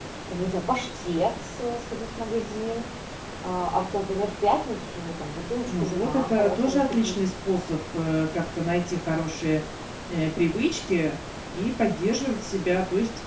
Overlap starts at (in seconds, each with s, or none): 5.7 s